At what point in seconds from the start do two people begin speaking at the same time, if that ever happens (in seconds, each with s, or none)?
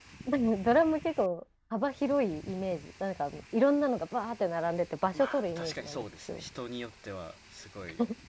5.1 s